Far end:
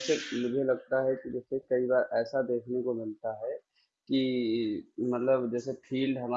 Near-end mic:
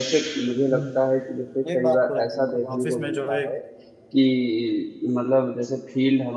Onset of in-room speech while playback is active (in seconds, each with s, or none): 0.7 s